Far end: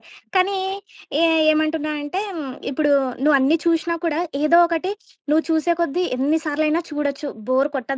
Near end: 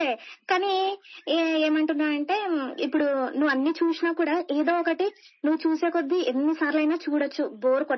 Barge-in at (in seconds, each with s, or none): none